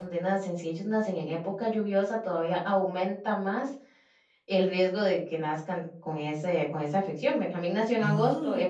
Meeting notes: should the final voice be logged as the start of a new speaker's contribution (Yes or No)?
No